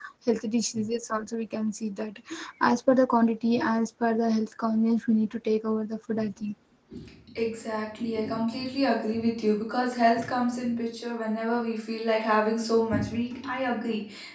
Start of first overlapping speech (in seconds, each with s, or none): none